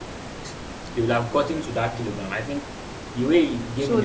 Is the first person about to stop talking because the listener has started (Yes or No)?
Yes